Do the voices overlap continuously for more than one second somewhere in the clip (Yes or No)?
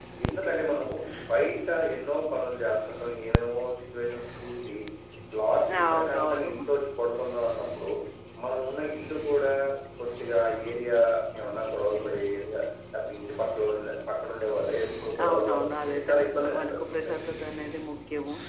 Yes